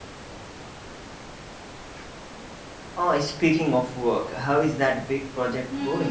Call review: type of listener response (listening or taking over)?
taking over